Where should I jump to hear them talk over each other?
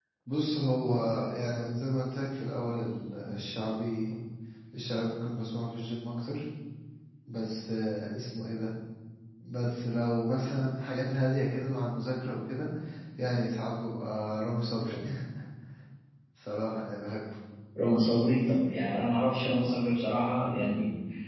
none

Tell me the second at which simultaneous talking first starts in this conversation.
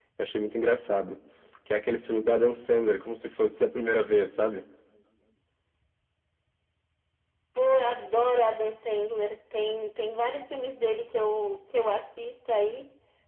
none

